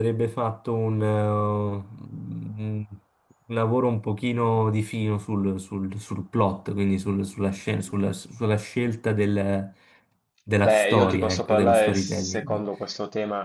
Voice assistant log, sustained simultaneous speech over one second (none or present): present